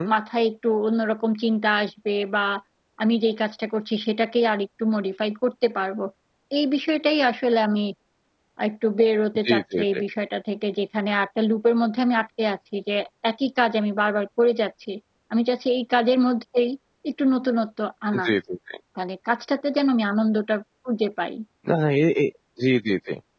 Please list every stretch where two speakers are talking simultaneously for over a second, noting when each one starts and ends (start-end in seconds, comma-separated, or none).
none